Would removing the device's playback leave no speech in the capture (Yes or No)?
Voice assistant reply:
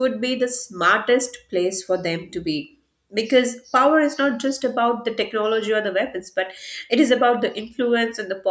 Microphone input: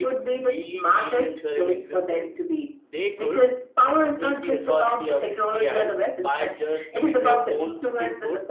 No